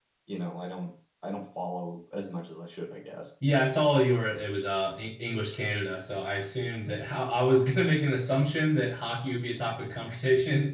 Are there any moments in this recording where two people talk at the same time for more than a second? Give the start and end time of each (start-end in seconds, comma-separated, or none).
none